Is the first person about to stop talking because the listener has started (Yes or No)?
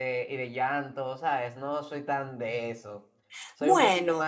No